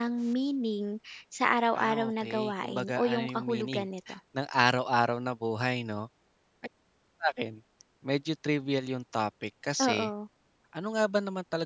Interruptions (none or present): present